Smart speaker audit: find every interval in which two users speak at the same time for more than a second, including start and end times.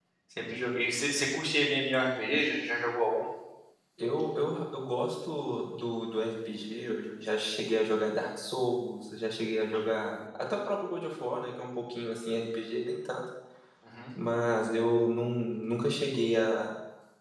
none

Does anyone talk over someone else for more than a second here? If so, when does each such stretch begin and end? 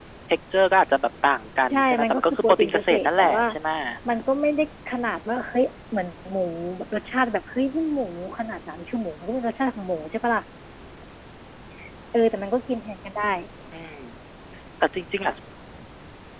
1.7-3.4

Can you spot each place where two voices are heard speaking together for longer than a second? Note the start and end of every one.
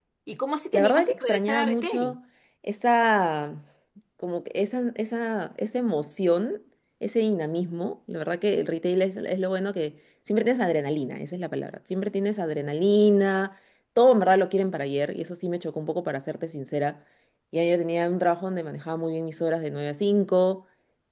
0.7-2.2

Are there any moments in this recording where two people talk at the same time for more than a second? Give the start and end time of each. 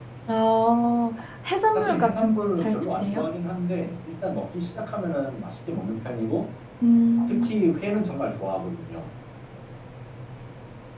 1.7-3.2

